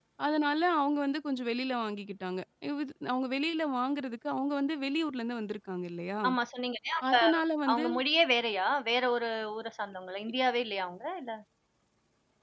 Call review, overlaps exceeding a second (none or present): none